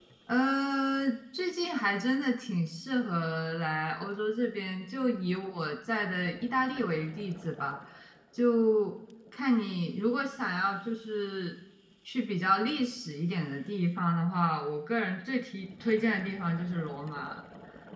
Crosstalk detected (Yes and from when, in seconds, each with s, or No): No